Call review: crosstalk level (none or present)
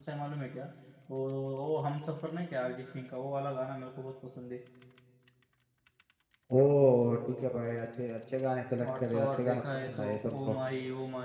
present